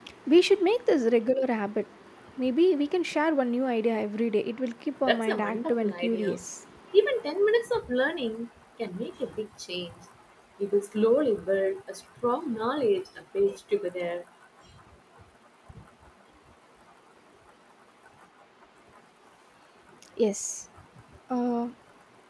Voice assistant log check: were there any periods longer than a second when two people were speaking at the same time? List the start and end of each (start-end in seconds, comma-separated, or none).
5.1-6.4